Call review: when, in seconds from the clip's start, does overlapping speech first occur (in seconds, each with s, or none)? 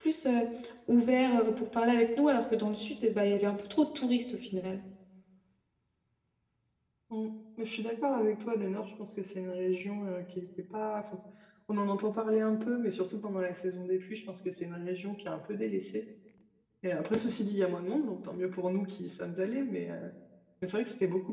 none